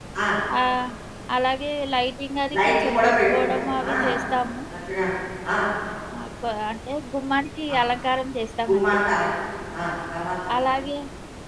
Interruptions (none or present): present